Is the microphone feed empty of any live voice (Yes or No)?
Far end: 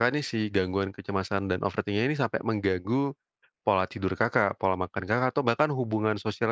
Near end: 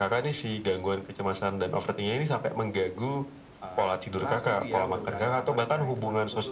No